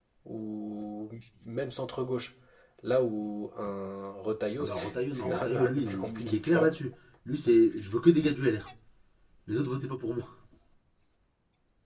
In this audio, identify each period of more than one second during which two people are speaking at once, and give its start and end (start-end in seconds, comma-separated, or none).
4.6-6.7